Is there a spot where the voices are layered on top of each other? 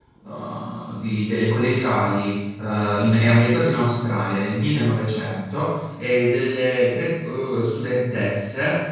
No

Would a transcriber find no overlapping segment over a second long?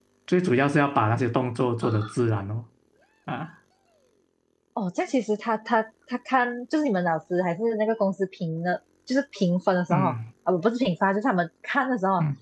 Yes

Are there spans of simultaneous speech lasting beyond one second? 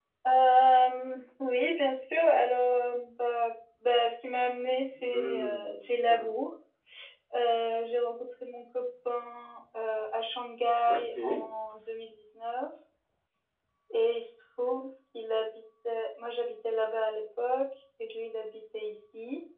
Yes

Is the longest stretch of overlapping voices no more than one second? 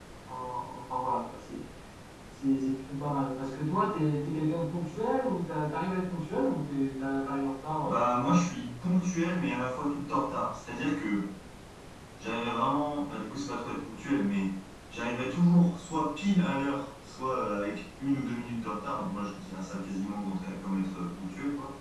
Yes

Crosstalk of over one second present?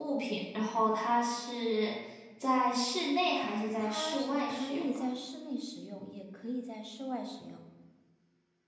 Yes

